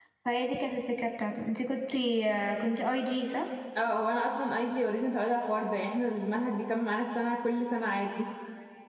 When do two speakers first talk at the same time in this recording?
none

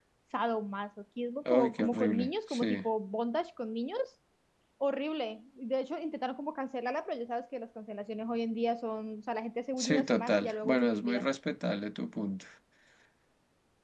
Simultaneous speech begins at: 2 s

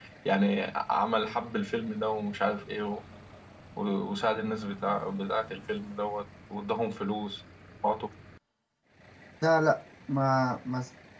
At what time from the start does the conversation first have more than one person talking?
none

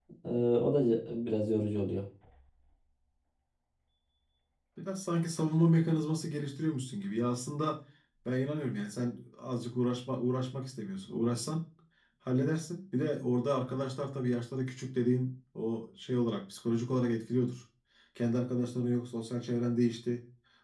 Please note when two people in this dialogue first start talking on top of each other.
none

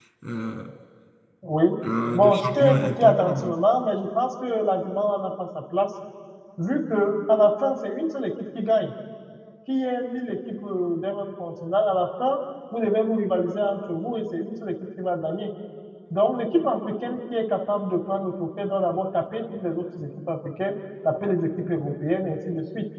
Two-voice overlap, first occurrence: 2 s

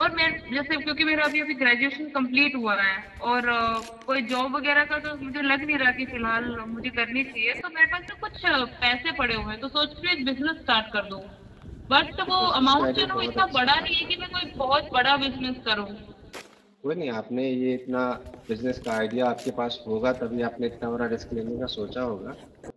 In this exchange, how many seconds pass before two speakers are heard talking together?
12 s

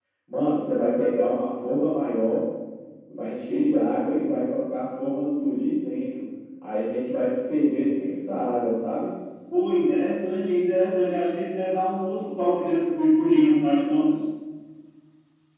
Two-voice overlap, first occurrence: none

